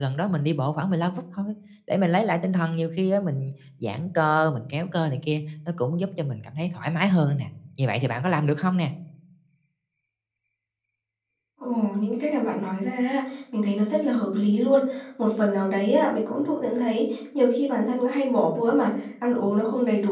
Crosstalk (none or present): none